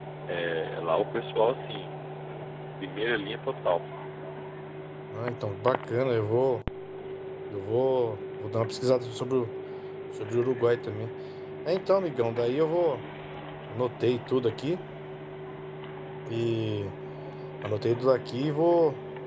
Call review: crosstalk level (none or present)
none